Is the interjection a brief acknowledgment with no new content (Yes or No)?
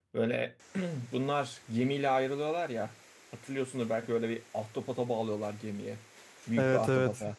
No